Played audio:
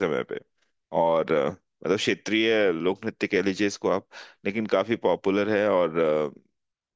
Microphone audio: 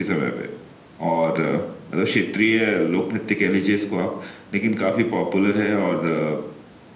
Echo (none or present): present